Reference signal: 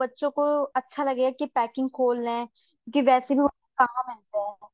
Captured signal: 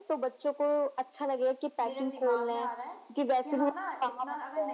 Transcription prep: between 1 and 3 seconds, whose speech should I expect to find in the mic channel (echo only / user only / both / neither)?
both